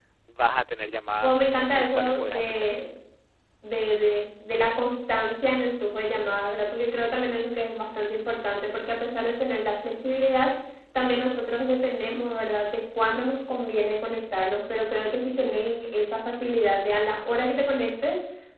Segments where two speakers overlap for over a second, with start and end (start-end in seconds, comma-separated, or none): 1.2-2.7